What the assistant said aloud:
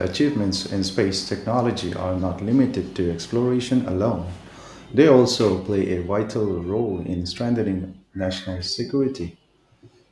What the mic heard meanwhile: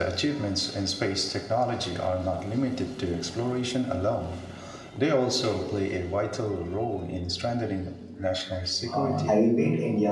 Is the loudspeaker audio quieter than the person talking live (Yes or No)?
Yes